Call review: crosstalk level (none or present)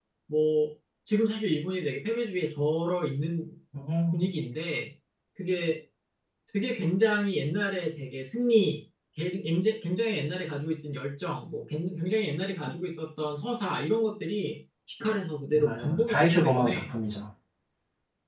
present